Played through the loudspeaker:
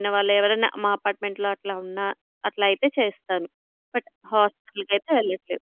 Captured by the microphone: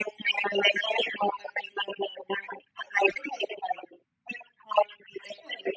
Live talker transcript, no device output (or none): none